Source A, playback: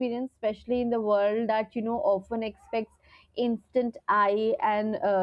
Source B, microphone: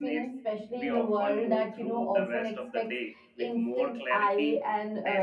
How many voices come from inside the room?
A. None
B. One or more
B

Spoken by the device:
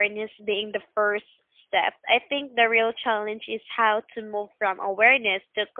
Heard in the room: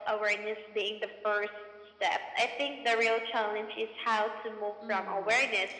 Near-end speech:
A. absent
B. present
B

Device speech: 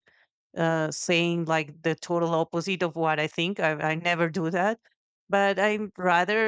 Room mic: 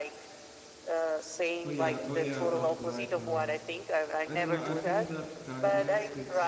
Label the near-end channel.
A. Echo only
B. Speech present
B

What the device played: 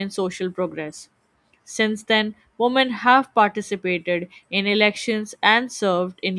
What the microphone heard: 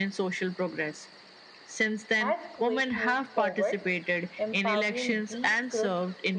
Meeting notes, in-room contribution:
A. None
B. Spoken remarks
B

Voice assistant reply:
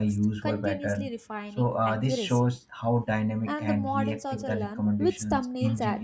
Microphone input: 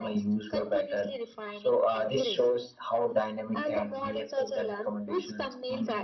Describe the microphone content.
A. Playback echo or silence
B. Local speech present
A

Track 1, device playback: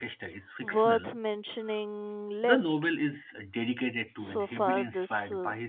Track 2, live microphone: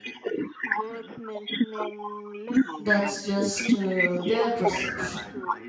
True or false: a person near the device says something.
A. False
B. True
B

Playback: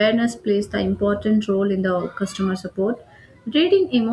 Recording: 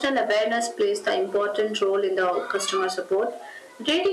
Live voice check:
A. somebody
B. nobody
B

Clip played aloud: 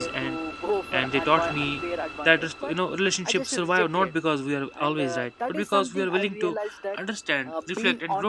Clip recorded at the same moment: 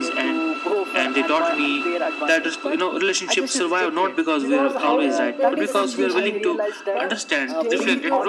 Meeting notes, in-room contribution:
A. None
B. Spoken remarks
B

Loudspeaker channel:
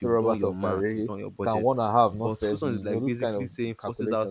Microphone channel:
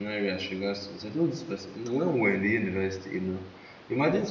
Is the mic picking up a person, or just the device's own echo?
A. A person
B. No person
A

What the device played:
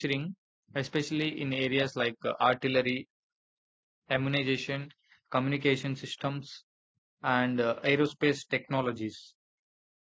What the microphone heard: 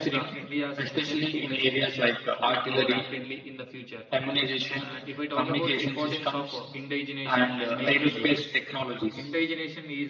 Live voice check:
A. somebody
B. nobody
A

